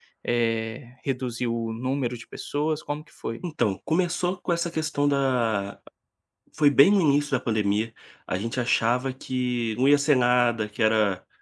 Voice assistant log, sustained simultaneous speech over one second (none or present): none